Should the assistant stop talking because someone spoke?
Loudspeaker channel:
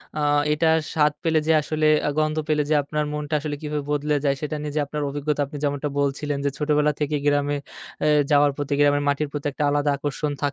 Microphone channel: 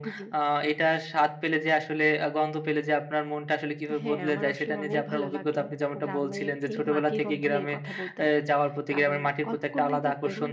Yes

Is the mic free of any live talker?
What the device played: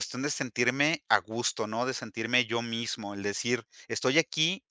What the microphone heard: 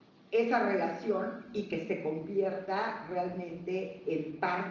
No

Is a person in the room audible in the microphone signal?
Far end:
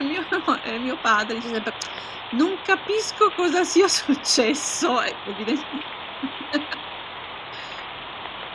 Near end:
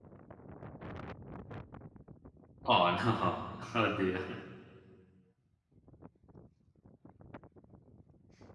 Yes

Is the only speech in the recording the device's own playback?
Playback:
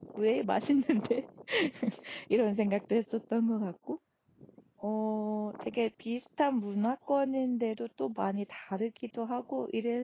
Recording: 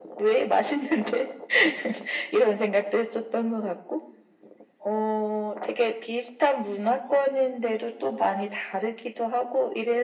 Yes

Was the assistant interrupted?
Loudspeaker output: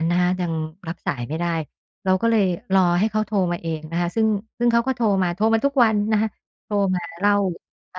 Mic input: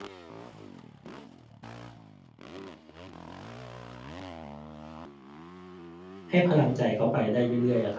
Yes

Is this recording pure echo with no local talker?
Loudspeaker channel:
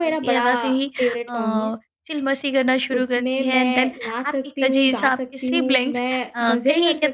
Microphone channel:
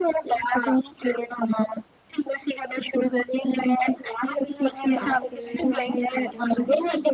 No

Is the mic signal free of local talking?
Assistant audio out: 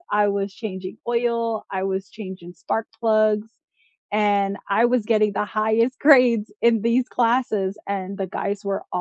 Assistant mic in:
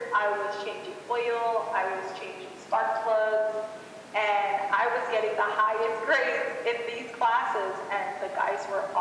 Yes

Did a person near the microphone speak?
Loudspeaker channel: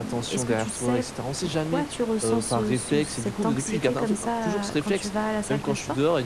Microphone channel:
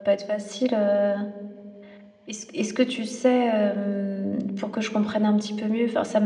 Yes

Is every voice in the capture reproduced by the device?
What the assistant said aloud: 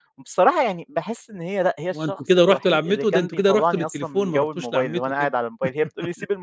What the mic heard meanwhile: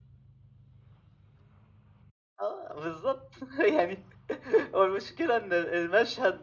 No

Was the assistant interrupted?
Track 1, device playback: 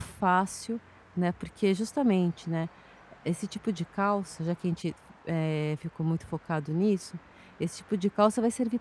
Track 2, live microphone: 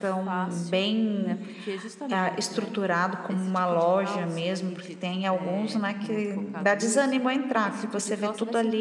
Yes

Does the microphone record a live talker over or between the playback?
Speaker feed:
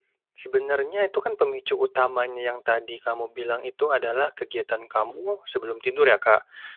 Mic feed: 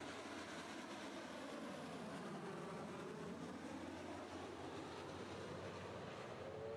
No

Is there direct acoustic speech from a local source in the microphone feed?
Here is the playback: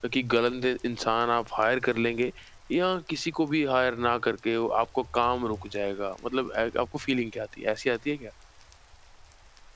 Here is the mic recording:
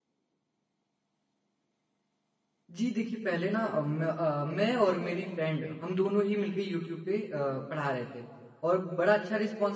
Yes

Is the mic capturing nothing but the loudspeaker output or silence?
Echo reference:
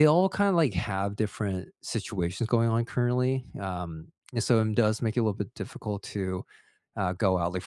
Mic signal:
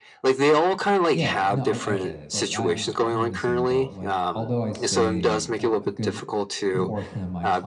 No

